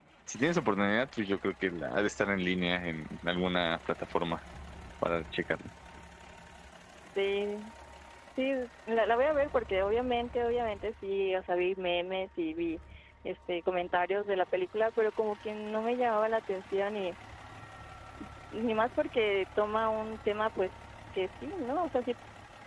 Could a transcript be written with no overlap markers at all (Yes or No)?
Yes